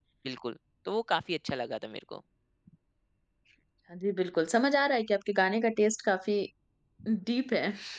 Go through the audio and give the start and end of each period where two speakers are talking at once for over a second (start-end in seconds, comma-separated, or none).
none